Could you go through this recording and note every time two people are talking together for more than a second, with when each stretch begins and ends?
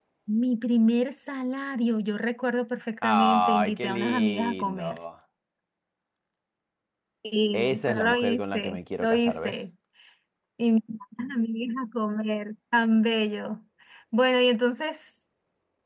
3.0-5.0, 7.5-9.5

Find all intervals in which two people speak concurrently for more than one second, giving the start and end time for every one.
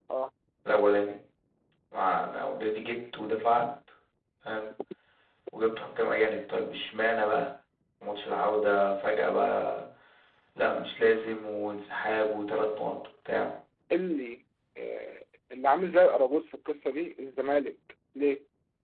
none

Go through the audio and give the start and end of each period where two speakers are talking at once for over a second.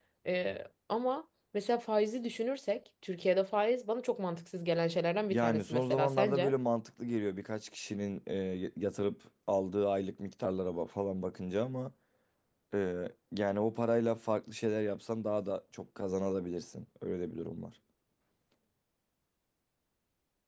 5.3-6.5

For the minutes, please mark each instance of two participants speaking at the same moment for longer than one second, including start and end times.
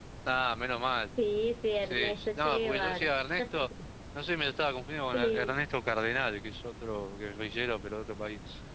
1.8-3.1

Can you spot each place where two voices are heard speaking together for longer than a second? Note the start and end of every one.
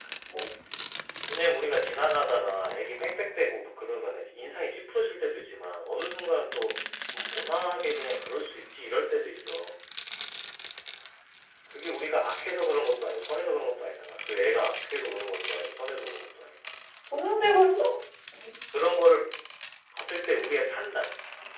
none

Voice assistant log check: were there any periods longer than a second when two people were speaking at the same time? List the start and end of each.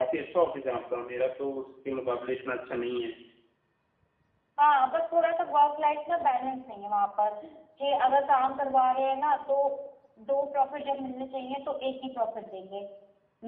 none

